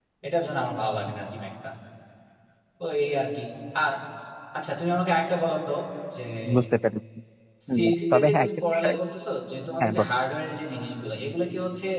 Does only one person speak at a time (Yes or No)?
No